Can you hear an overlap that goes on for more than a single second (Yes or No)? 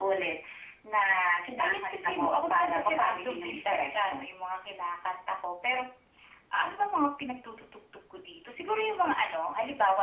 Yes